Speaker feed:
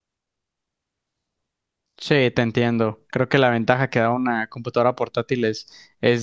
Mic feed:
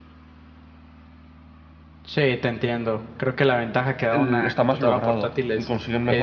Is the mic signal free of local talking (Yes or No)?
No